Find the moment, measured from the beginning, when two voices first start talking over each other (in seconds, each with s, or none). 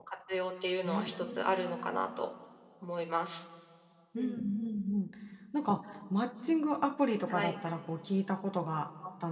0.8 s